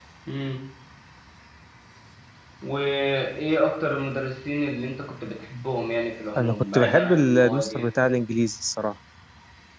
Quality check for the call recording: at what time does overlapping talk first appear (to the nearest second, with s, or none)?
6 s